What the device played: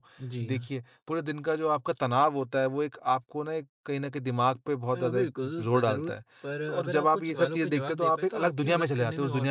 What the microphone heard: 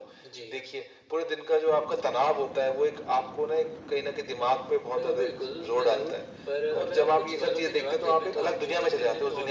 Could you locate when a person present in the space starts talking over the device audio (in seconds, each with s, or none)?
none